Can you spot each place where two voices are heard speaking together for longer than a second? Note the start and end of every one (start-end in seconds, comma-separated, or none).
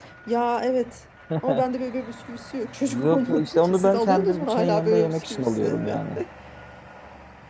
2.9-6.2